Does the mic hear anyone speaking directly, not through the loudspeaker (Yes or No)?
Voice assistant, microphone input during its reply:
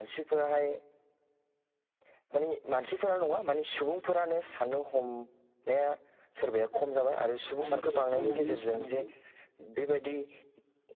Yes